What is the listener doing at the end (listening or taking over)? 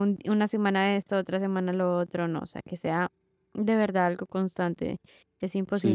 taking over